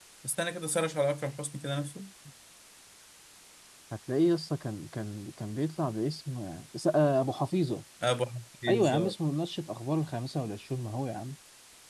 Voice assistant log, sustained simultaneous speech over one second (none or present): none